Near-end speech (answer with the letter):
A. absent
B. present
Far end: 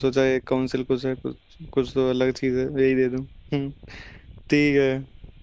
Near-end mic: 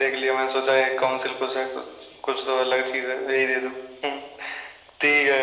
A